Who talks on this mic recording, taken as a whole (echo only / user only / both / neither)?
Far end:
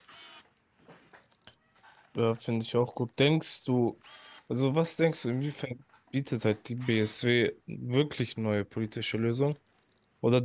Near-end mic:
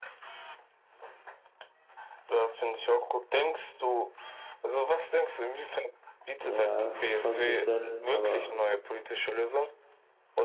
both